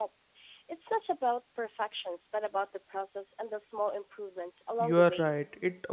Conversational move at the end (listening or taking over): taking over